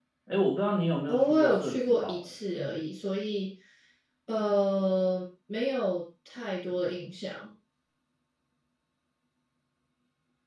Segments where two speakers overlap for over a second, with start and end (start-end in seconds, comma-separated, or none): 1.1-2.3